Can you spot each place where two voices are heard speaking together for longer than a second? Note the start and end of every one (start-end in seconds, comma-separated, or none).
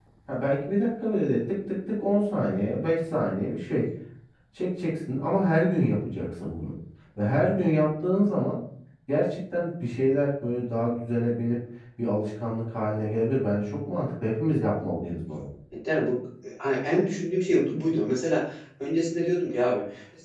none